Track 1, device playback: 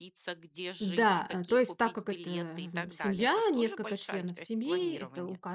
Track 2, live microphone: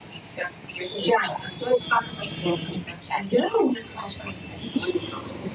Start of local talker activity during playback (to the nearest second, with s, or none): none